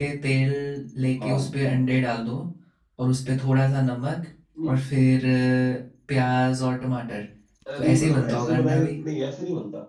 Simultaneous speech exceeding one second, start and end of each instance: 7.8-9.0

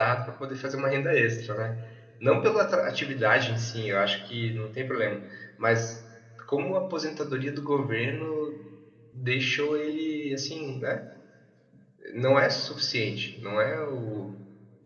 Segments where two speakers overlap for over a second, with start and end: none

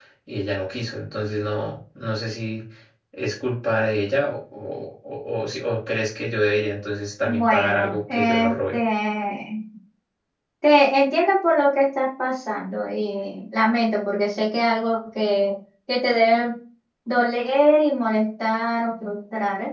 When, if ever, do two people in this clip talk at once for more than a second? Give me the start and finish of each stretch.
7.2-8.8

